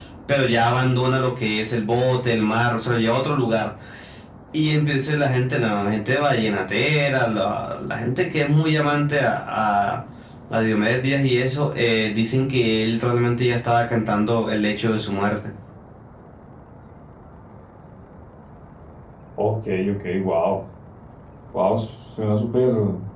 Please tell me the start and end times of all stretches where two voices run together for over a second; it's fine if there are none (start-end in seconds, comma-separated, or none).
none